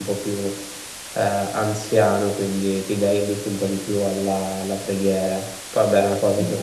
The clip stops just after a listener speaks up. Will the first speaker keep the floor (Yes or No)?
Yes